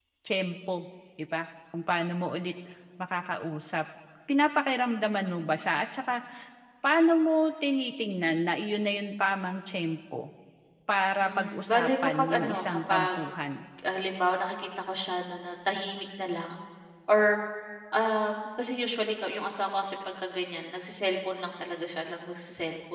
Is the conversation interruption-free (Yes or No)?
No